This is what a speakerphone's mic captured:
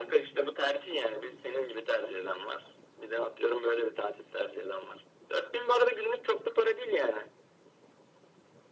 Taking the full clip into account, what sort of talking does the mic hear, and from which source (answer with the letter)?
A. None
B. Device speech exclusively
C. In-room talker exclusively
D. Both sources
B